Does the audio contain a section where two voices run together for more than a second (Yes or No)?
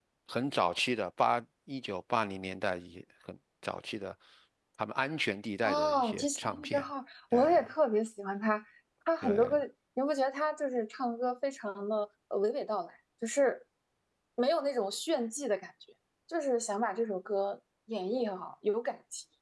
Yes